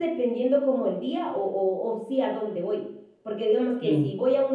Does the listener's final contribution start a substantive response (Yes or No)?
No